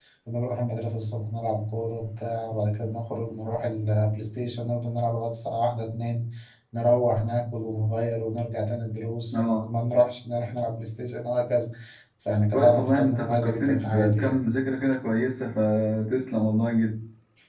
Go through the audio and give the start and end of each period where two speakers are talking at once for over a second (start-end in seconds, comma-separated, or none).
12.5-14.4